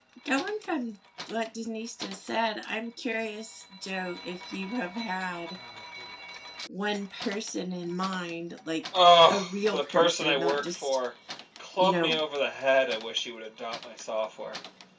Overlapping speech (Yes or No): Yes